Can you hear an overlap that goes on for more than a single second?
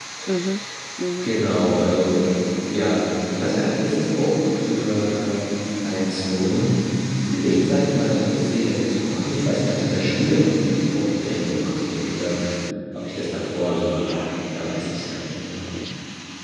No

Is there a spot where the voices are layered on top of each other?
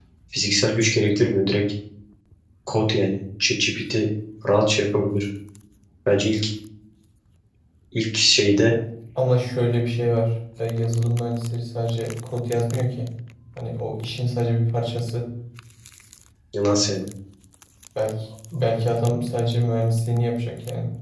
No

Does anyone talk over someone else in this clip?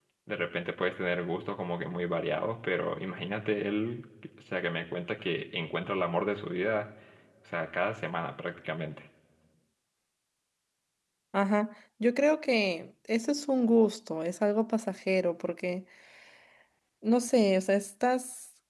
No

